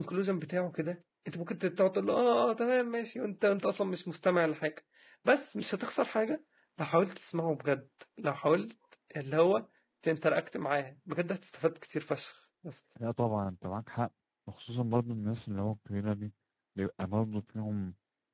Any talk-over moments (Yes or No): No